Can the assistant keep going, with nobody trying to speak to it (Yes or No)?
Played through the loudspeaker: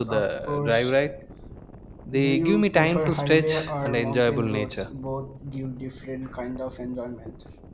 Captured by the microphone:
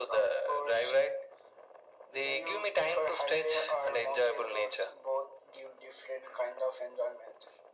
Yes